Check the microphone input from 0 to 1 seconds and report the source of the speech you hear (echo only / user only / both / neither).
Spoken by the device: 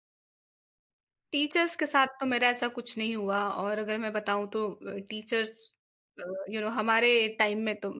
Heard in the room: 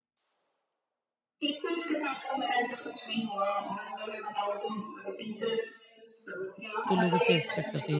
neither